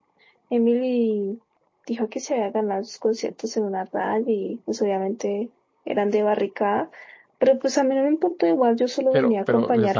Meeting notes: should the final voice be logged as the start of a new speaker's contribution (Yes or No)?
Yes